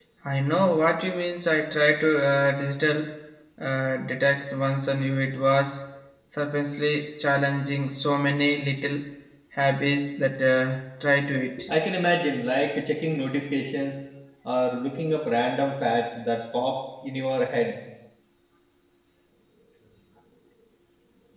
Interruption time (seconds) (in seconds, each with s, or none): none